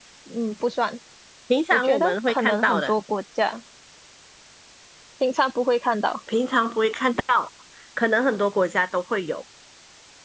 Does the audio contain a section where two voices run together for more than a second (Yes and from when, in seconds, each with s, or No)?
Yes, from 1.7 s